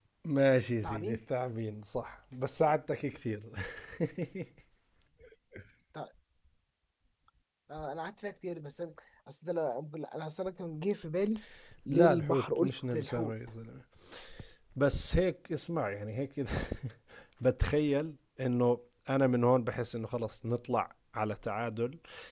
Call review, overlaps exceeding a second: present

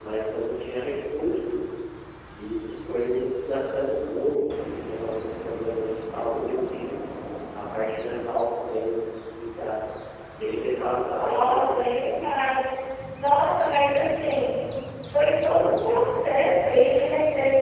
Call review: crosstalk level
present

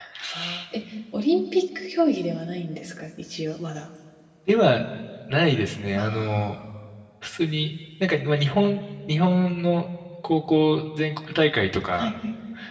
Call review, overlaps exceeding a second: none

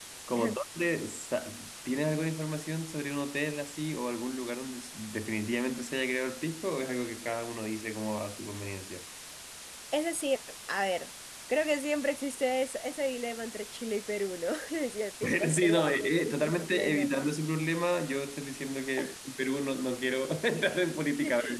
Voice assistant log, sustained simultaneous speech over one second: present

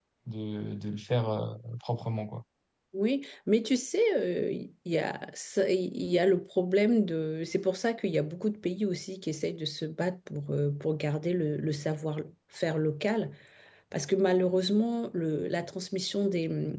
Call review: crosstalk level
none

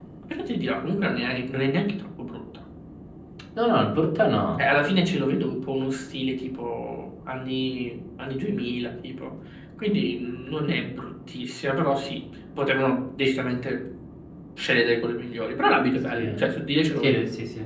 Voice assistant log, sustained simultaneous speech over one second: none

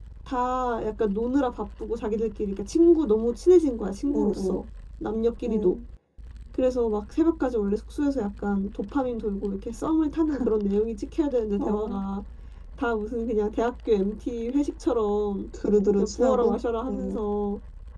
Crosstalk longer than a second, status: present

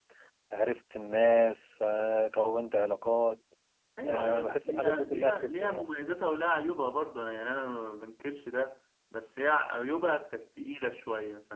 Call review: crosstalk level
present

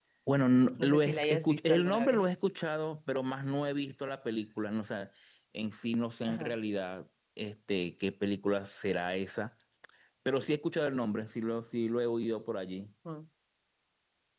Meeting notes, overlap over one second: present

